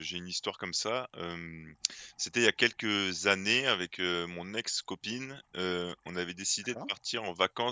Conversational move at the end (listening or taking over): listening